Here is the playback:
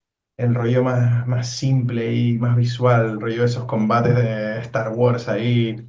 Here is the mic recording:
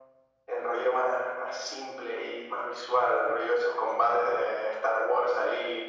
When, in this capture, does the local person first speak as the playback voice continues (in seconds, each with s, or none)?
none